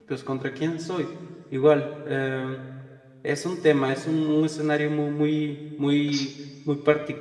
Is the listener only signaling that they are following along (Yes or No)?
Yes